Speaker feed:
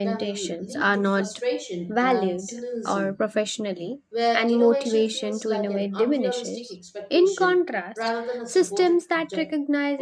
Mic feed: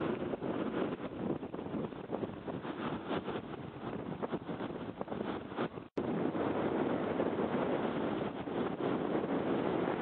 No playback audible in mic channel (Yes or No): Yes